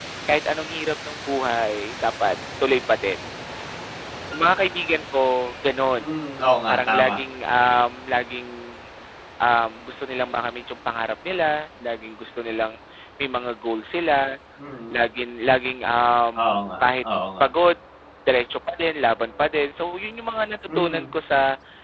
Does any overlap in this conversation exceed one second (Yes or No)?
No